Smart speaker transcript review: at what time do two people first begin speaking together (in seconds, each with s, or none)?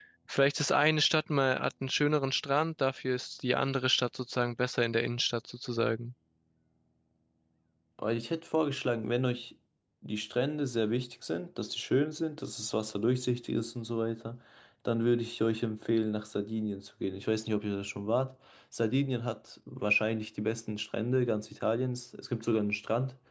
none